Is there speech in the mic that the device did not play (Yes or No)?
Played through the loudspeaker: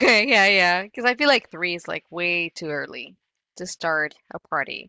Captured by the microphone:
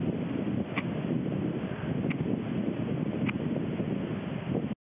No